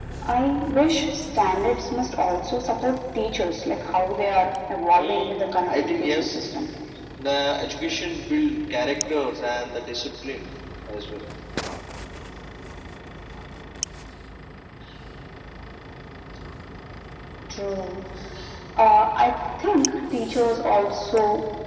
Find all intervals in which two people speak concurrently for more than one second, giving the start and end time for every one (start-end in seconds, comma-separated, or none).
5.0-6.4